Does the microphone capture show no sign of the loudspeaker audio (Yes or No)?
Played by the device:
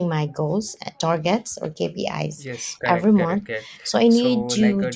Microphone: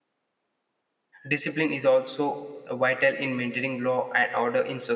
Yes